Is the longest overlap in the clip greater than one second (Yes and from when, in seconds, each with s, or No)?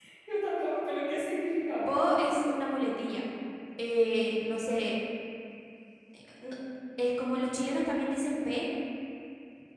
No